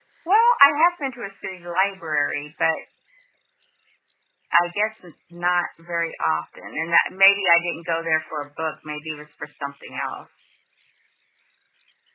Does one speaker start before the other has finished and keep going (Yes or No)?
No